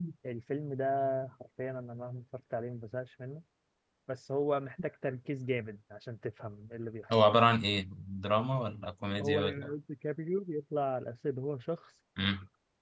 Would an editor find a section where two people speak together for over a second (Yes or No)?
No